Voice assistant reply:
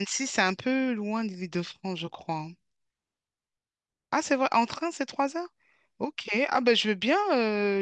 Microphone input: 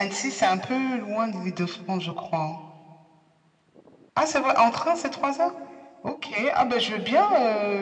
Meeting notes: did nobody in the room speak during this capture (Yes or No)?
Yes